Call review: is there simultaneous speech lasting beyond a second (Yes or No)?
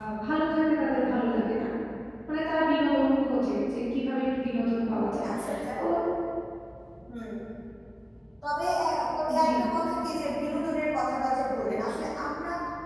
No